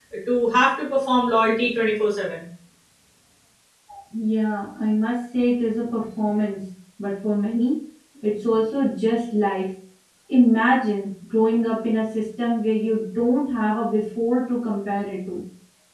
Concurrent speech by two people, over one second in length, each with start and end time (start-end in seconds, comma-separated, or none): none